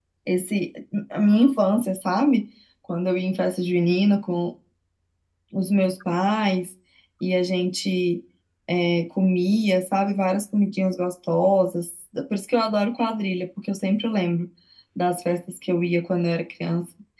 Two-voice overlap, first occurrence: none

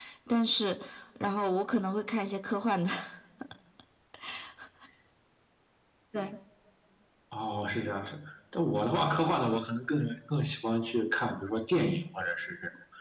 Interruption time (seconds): none

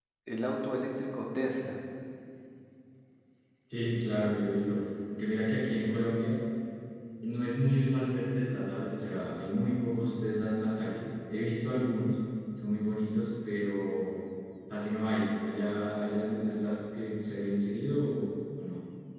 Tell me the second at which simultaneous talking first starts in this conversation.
none

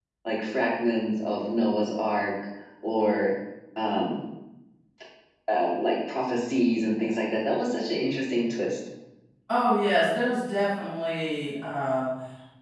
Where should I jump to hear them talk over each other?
none

